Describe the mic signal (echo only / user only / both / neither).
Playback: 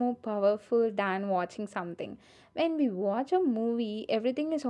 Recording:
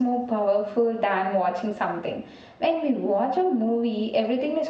echo only